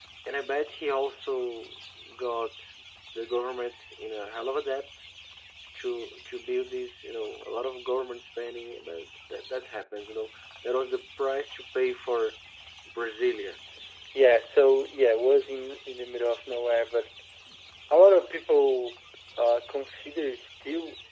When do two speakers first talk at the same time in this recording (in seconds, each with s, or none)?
none